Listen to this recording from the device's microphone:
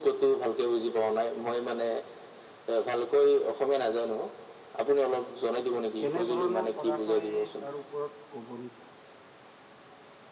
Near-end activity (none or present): present